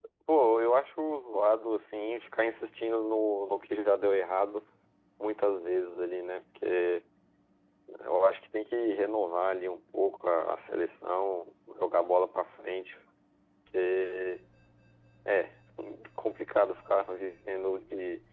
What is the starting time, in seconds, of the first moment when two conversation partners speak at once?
none

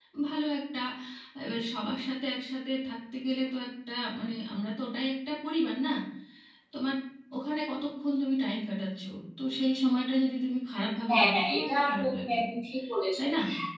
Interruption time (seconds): 11.1 s

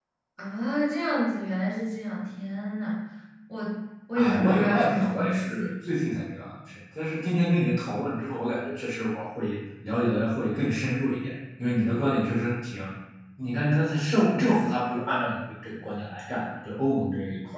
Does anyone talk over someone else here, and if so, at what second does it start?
4.2 s

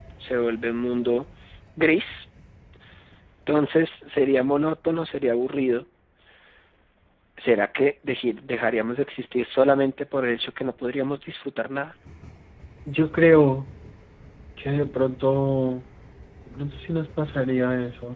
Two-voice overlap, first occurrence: none

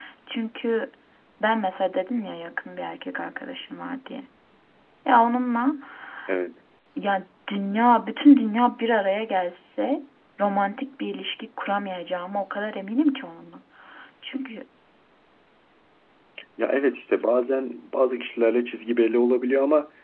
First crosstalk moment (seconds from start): none

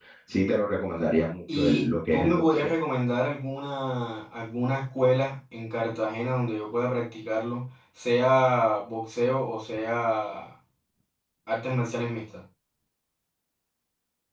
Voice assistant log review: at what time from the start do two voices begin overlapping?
1.5 s

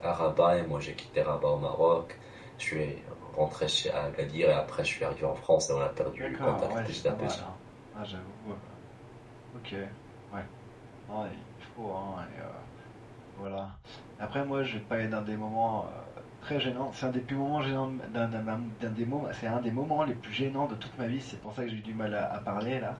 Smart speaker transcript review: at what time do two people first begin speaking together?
6.2 s

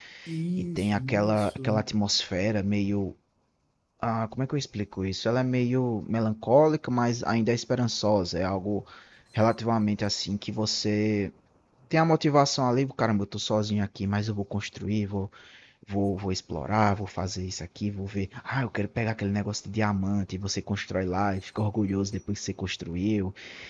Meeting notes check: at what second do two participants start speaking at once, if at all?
0.6 s

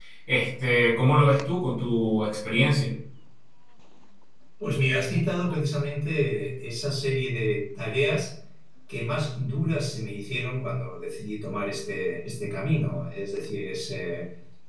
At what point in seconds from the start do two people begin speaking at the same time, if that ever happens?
none

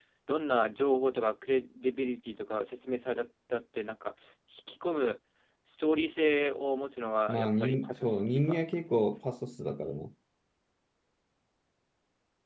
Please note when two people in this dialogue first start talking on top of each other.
7.3 s

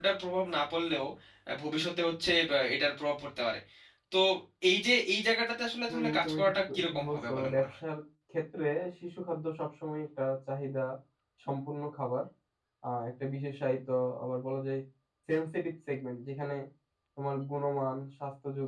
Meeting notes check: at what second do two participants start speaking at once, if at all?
5.9 s

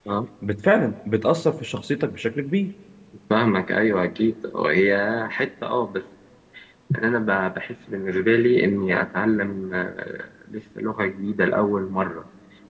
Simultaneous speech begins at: none

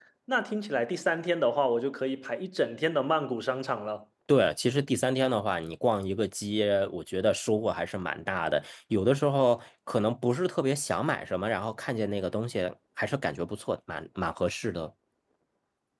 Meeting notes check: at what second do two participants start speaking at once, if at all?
none

